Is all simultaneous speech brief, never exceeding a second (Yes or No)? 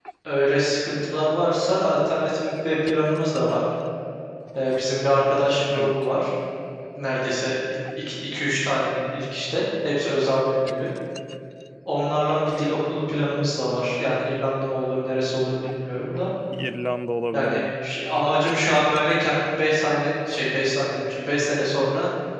Yes